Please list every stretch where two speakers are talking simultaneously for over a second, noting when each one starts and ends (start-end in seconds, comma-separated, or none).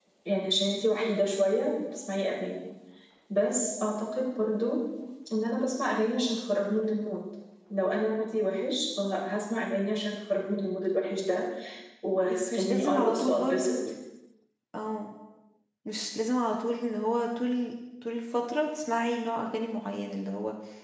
12.3-13.8